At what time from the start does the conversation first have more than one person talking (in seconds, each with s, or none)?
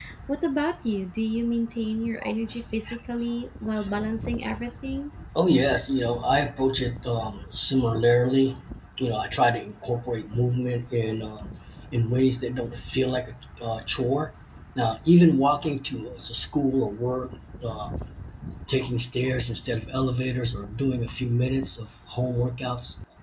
none